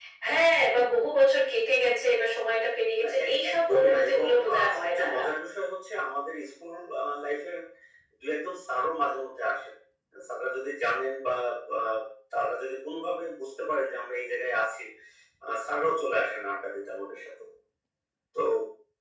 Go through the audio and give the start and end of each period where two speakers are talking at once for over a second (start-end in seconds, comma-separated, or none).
3.0-5.2